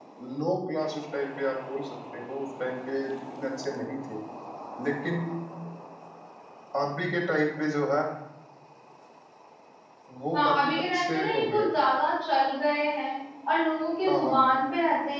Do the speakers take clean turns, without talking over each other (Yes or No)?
No